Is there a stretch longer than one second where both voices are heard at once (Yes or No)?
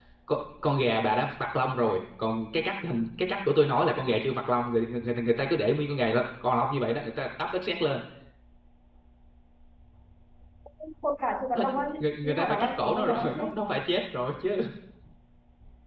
Yes